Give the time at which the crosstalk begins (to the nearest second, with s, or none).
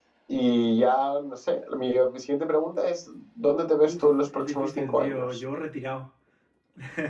4 s